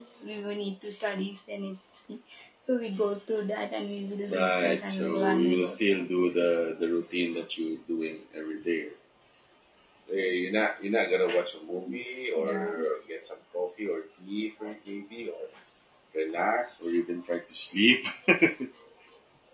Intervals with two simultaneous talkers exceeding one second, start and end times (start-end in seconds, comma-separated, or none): 4.3-6.0